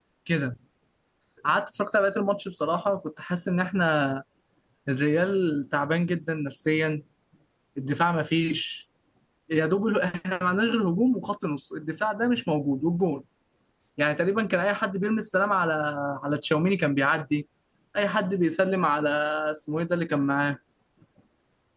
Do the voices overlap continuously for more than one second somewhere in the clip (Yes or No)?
No